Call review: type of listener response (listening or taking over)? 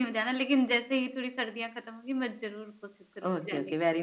taking over